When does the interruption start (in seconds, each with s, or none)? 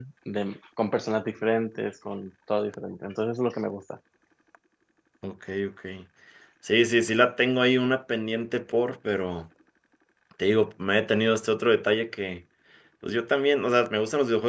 none